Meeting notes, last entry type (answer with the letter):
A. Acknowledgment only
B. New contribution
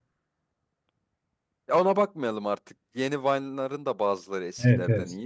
B